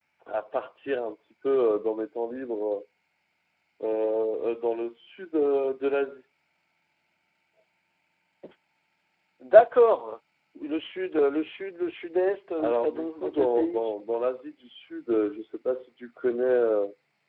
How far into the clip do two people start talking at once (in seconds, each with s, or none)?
12.6 s